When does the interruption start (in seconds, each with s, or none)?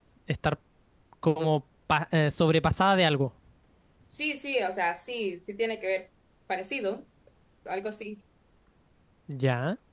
none